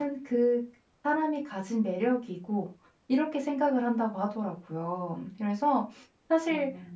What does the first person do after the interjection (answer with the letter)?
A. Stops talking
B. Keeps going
B